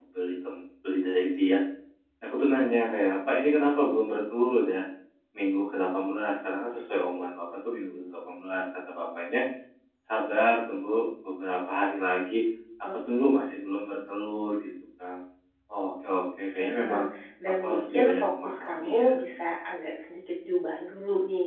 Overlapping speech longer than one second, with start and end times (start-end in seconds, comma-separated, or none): 17.6-19.1